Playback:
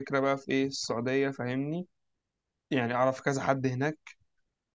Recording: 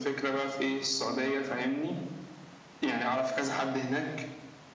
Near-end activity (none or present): none